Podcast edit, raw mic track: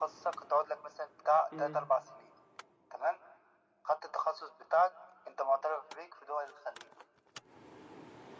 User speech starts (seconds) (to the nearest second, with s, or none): 2 s